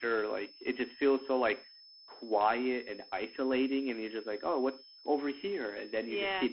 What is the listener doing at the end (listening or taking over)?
listening